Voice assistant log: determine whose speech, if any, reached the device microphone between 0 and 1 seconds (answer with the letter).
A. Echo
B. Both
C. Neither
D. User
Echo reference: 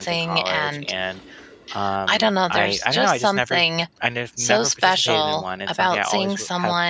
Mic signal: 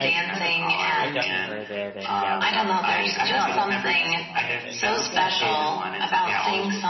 B